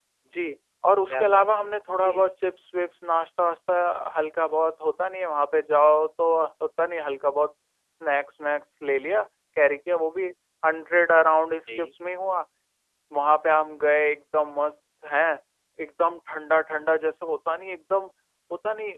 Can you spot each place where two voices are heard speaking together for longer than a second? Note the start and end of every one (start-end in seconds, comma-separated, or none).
1.1-2.3